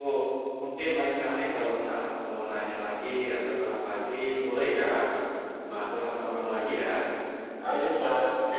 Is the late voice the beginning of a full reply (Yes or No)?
Yes